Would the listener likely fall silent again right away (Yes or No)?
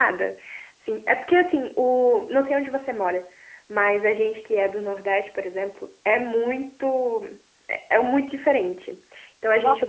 No